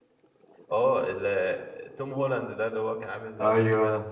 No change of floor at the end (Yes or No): No